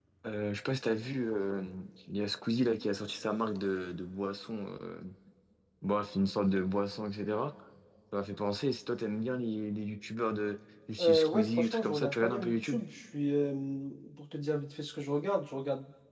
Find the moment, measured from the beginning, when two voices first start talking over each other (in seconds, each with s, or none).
11.0 s